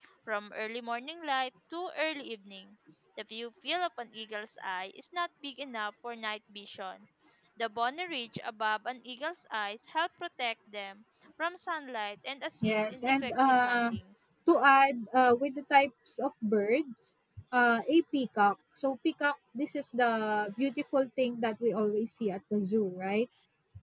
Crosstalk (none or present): present